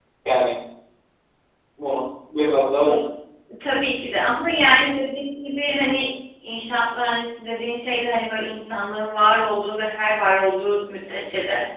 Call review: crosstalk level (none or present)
none